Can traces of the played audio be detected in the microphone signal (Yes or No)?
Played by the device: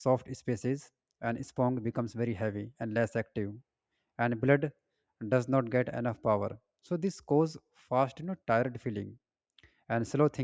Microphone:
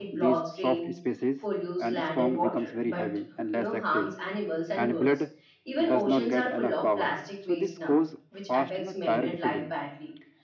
Yes